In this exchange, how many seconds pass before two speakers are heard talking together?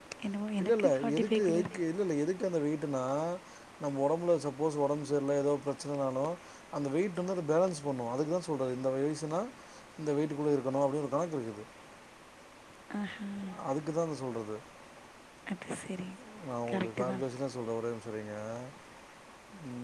0.6 s

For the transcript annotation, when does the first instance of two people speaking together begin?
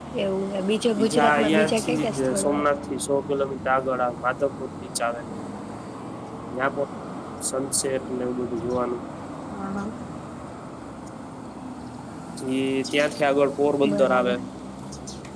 0.9 s

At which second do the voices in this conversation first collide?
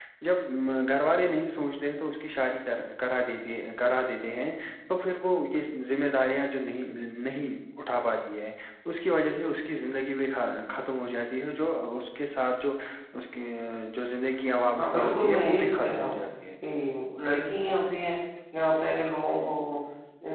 14.8 s

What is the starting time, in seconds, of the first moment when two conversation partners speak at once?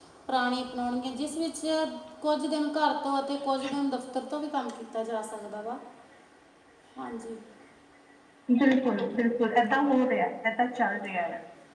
none

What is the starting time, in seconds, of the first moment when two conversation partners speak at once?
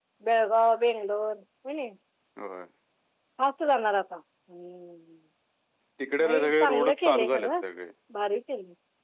6.2 s

